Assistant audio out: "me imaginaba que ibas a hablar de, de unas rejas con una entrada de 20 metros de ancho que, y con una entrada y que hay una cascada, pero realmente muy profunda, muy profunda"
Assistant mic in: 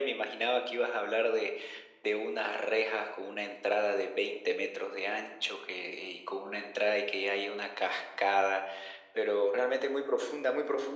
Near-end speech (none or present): none